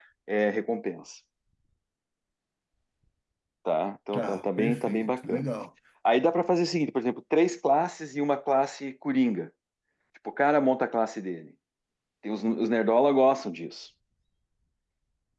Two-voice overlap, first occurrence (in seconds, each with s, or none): 4.1 s